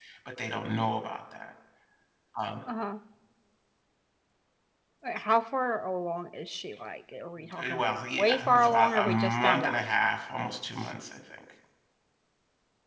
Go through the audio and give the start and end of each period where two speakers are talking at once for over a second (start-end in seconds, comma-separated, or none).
7.6-9.8